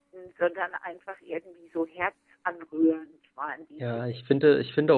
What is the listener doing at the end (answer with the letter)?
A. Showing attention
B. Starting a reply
B